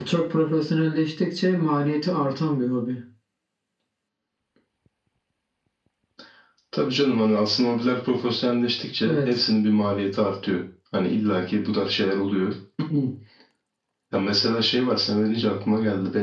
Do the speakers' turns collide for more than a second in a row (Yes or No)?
No